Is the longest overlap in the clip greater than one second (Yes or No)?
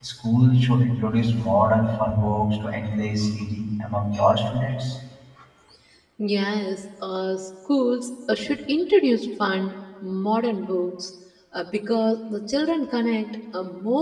No